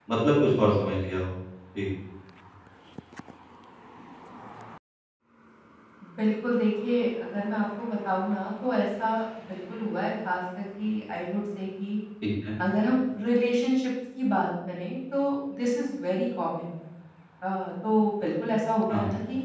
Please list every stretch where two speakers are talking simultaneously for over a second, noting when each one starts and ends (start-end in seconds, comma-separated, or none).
none